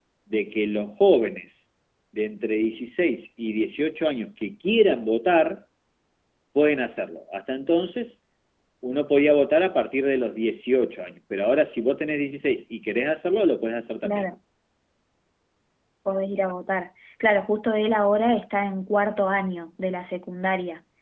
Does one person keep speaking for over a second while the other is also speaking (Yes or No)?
No